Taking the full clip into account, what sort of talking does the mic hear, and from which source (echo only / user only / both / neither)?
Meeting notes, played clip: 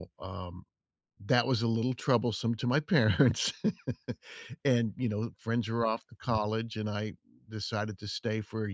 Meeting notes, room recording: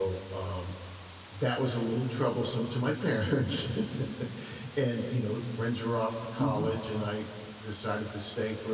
both